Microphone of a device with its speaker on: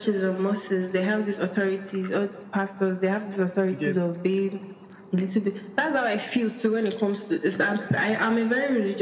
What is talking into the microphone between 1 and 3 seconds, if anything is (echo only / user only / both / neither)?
echo only